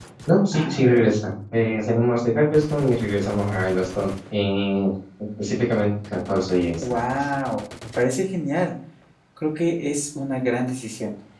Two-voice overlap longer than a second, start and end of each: none

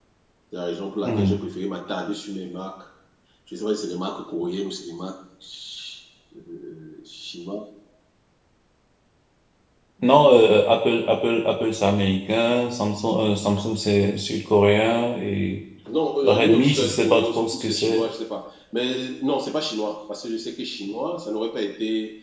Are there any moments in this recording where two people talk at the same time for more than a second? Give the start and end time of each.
16.2-18.1

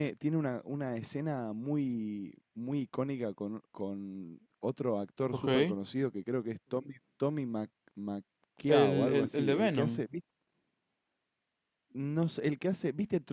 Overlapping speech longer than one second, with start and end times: 8.7-10.0

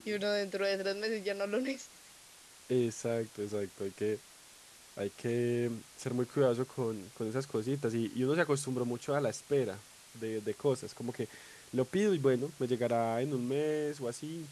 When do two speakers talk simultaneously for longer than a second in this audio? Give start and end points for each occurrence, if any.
none

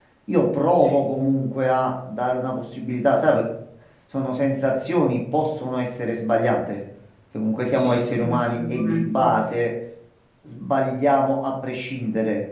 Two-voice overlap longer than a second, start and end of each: 7.7-9.2

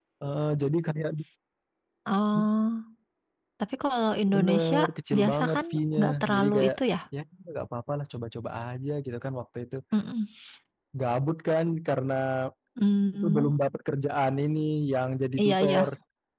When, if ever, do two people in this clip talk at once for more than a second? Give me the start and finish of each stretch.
5.2-6.7

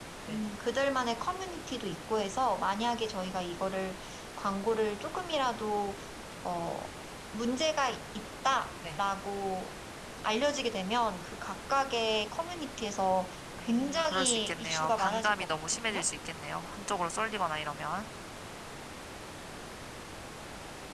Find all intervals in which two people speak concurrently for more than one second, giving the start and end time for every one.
13.6-16.1

